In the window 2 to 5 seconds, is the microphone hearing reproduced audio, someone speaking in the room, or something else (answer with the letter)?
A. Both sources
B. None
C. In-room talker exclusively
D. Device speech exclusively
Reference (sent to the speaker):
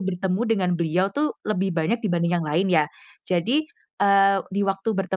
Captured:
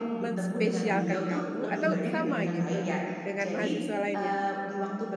A